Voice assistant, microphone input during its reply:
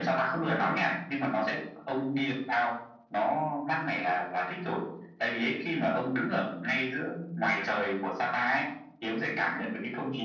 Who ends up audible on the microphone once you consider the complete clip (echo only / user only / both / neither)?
echo only